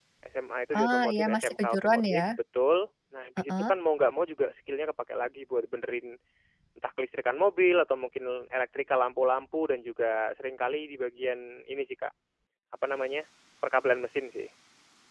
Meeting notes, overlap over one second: present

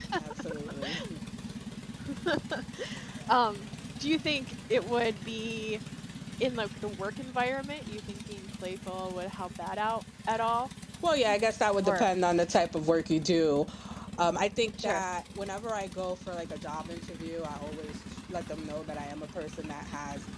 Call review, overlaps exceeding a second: none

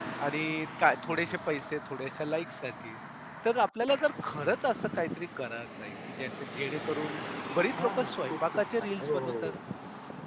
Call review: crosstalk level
present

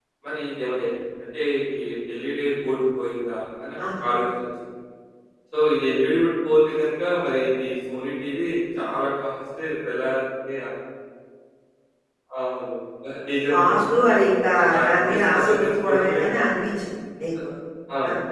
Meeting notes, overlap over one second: present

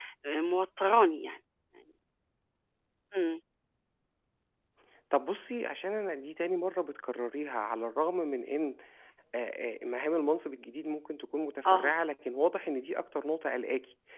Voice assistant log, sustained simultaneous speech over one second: none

